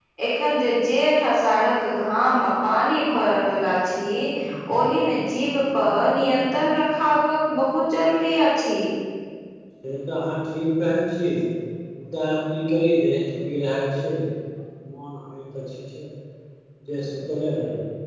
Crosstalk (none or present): none